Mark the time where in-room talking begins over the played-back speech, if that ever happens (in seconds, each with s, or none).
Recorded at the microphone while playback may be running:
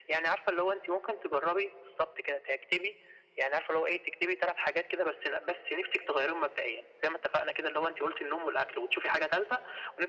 none